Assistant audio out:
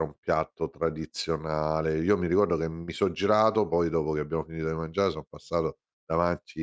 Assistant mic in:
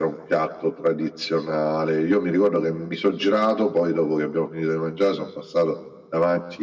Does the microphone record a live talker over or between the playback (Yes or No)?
No